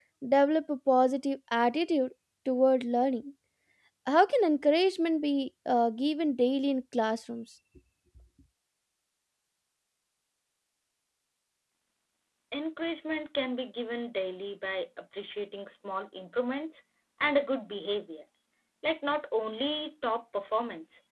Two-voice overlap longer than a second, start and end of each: none

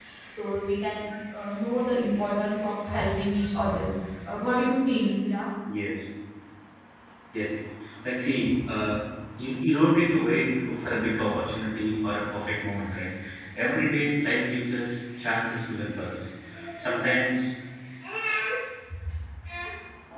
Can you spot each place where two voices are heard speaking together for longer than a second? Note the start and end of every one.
none

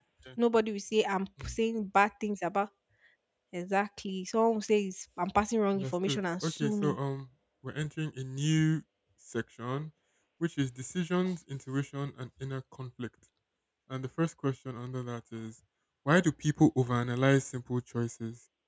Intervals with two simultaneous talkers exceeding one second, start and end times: 5.8-7.0

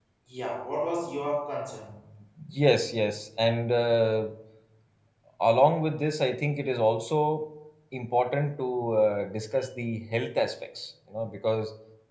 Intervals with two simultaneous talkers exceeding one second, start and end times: none

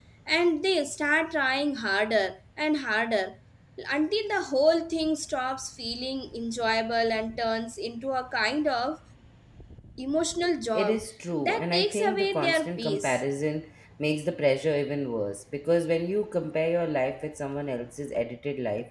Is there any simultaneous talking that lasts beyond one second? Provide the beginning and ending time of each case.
11.4-13.2

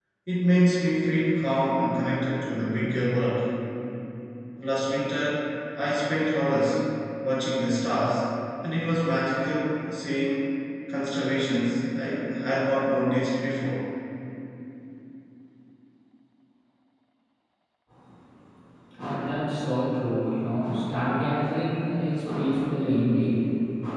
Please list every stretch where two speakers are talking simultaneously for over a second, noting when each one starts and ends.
none

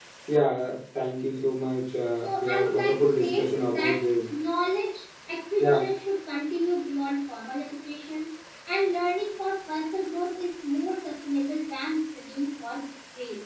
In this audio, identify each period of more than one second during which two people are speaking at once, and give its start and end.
2.2-4.0

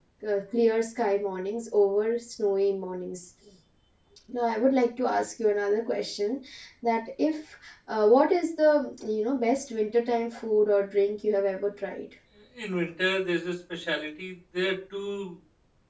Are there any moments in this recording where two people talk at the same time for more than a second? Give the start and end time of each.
none

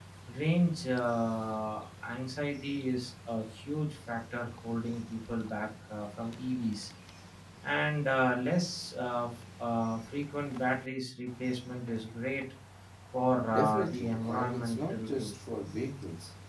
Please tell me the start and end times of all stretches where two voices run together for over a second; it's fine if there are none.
13.5-15.3

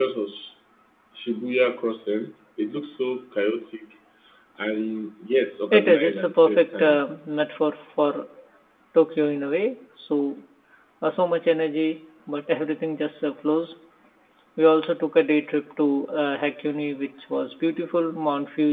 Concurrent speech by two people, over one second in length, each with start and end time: 5.7-7.0

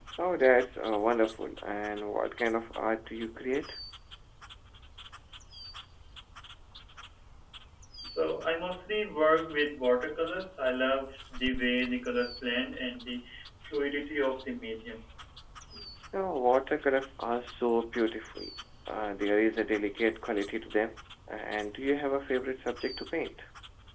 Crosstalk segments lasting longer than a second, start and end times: none

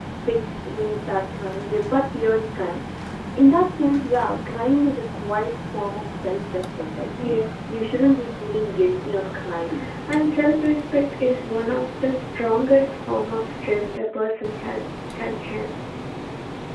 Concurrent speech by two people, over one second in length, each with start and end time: none

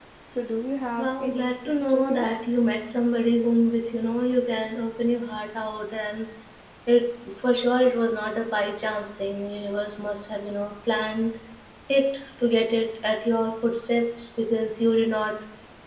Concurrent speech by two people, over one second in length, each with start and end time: 1.0-2.2

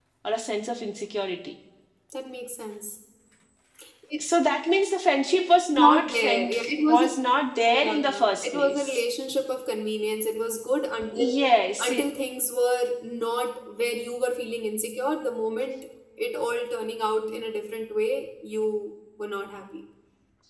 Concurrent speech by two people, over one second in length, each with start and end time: 5.7-7.0, 7.7-9.0

